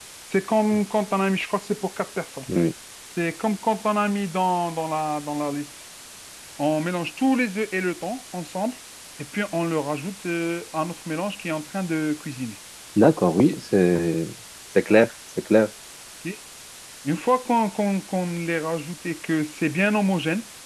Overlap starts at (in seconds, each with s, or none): none